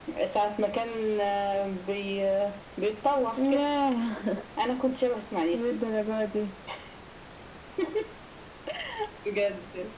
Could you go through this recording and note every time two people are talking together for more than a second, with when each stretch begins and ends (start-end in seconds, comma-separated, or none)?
none